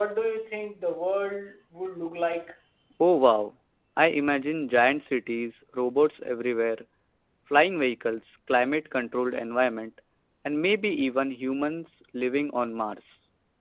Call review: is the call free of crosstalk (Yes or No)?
Yes